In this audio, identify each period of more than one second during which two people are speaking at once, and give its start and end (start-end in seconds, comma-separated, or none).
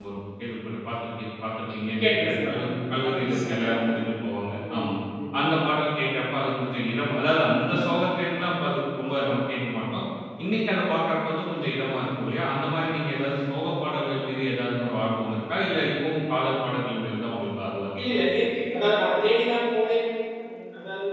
2.0-4.0